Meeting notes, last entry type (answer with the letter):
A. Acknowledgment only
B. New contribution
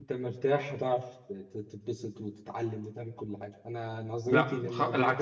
B